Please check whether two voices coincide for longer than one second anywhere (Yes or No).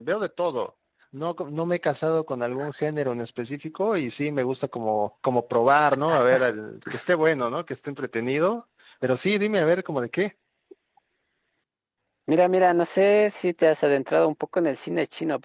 No